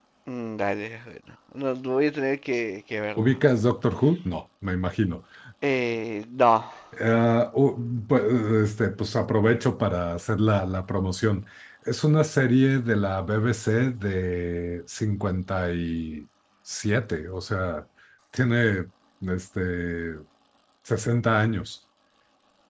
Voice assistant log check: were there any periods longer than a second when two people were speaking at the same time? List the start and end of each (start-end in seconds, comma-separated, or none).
none